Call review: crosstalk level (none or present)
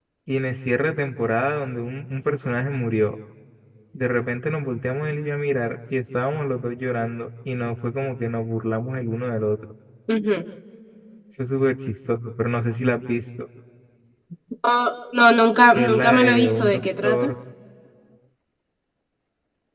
present